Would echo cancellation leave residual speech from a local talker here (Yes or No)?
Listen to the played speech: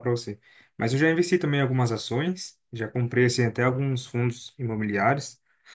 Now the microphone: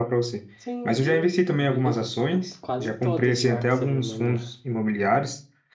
Yes